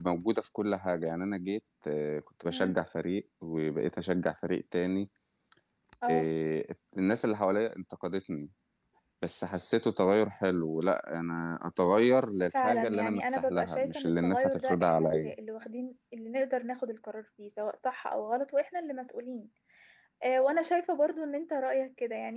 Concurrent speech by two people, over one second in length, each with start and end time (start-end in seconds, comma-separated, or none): 12.6-15.3